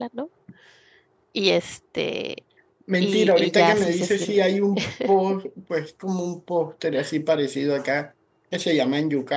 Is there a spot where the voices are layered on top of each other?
Yes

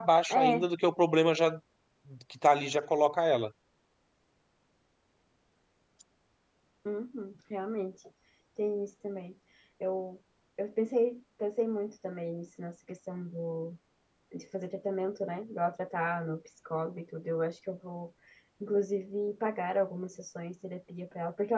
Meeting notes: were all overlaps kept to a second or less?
Yes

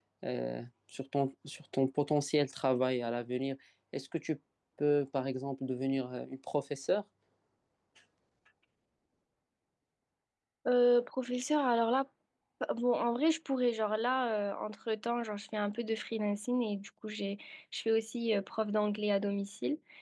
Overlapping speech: No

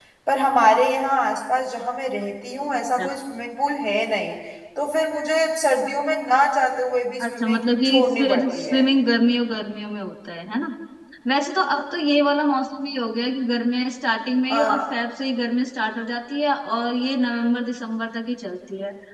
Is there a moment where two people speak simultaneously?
Yes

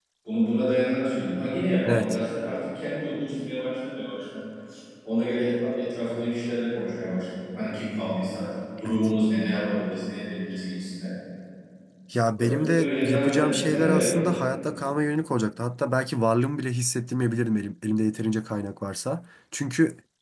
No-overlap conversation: No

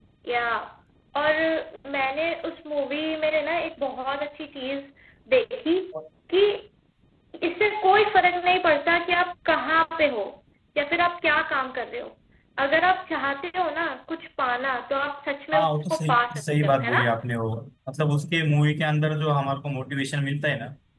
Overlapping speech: Yes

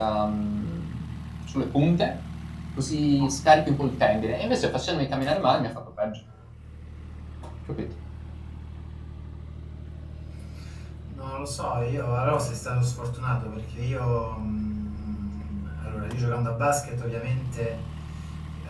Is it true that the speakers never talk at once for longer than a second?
Yes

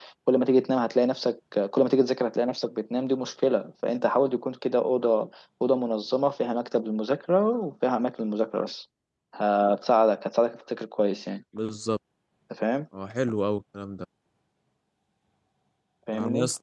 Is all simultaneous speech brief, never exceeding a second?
Yes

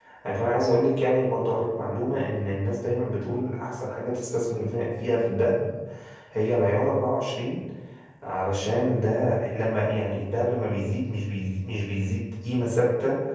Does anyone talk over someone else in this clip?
No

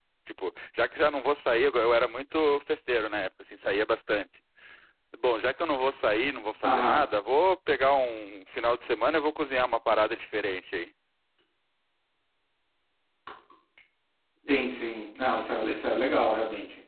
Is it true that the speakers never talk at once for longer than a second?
Yes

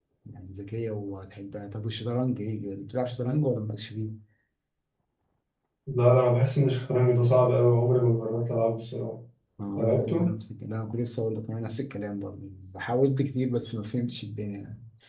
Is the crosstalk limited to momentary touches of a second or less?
Yes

